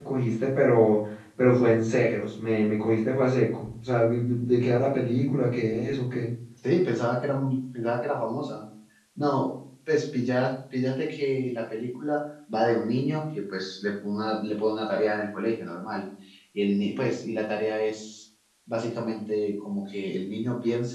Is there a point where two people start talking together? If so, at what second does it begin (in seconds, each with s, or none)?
none